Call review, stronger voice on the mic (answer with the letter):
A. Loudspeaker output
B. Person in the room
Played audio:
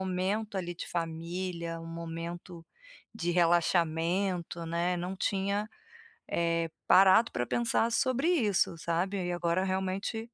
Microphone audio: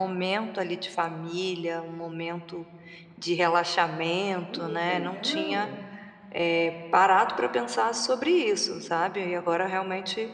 A